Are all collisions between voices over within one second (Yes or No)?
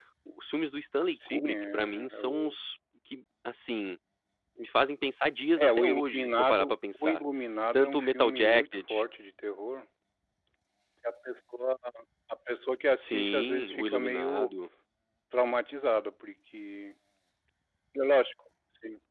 No